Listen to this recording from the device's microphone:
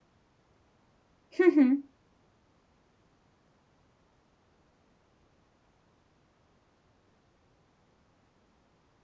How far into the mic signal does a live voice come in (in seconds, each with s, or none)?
1.4 s